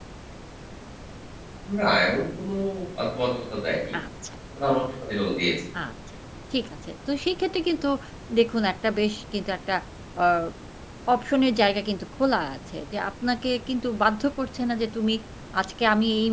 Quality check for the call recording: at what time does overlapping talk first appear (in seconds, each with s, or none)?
none